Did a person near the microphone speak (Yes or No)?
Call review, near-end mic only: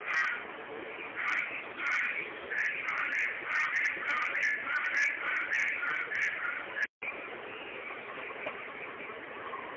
No